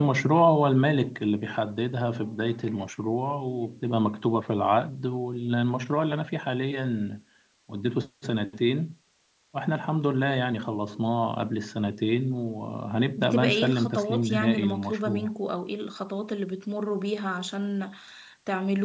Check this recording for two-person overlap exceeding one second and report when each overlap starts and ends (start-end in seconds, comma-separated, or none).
13.2-15.3